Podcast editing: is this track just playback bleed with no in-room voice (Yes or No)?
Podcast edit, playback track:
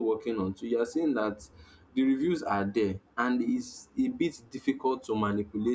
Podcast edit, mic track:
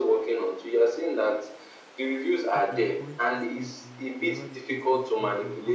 No